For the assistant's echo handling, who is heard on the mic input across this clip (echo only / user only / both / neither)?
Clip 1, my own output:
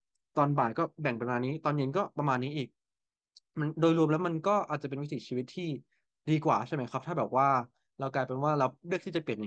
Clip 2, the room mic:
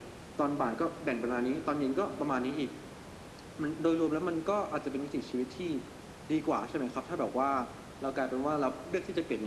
echo only